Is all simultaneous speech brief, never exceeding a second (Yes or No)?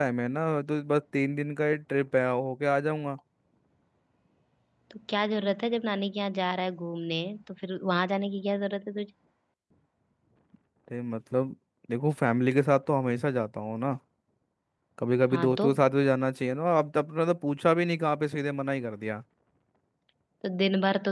Yes